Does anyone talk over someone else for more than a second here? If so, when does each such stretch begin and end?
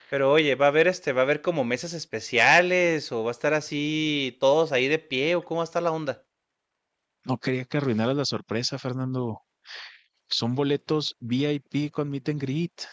none

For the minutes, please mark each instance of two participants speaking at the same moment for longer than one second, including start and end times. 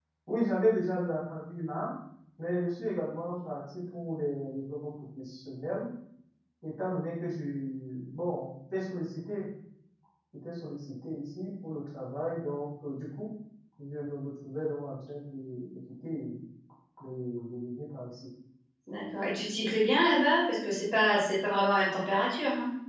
none

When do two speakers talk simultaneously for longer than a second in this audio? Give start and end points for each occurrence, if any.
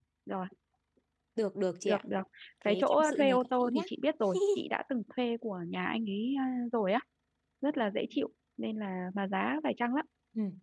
2.7-3.9

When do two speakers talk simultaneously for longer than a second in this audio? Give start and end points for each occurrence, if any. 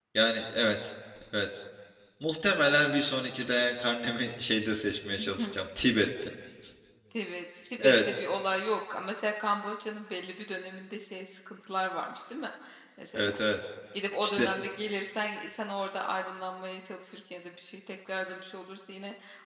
none

